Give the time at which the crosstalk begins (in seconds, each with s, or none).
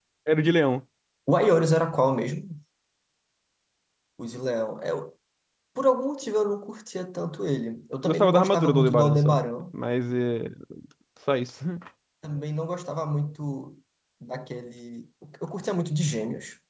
8.0 s